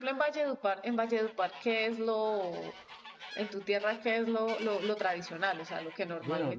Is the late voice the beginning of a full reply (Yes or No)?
Yes